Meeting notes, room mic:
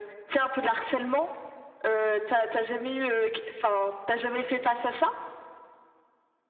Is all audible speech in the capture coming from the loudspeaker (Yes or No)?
Yes